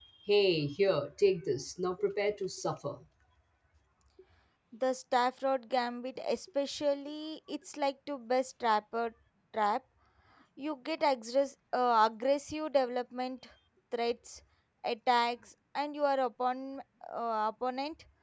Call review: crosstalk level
none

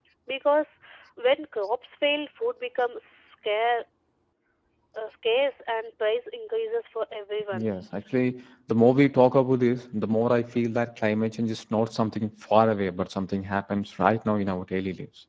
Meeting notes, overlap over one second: none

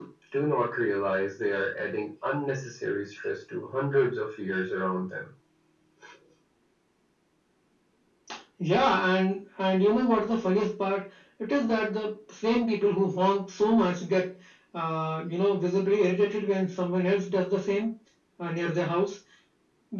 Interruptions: none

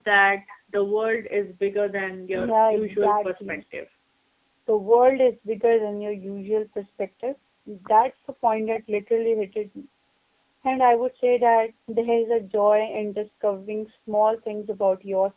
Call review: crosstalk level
present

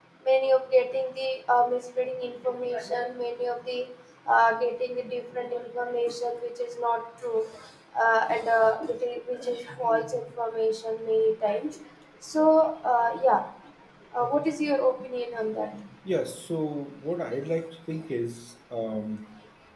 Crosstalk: none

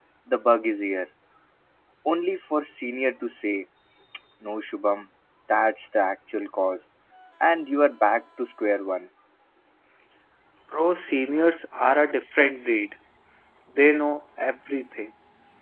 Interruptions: none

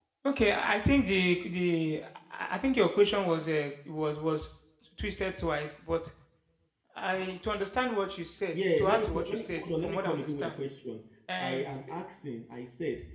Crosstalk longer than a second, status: present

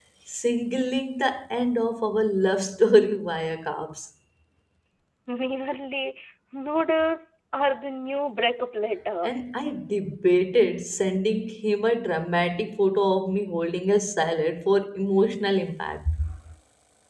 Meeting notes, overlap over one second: none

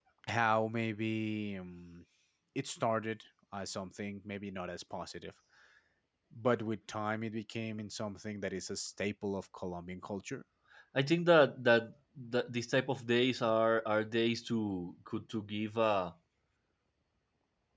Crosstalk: none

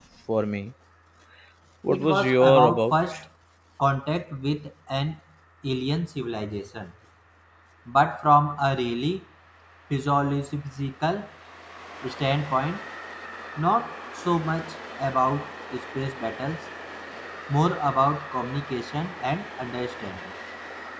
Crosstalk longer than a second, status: present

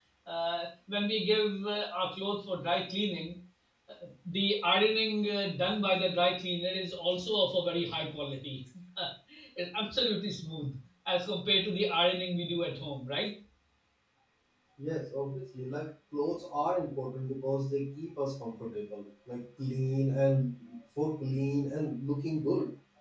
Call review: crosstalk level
none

